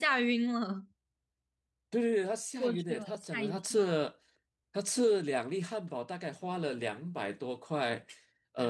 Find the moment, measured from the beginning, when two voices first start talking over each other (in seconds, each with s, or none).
2.6 s